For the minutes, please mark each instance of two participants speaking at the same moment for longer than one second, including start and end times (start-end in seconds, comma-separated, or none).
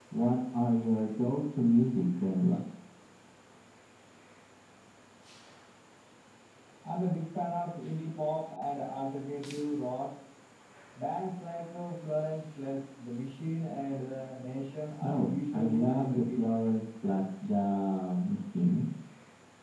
15.0-16.4